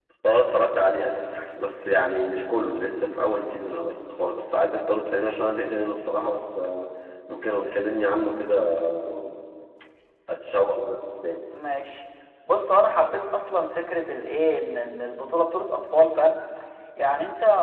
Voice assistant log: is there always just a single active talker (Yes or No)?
Yes